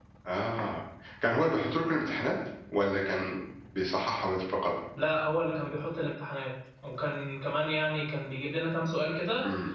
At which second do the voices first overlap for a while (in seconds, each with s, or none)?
none